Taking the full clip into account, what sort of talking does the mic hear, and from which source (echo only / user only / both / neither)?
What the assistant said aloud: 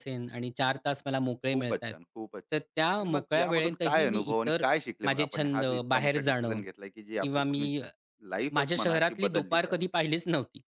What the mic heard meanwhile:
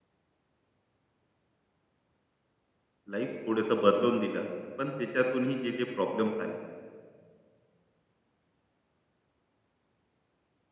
user only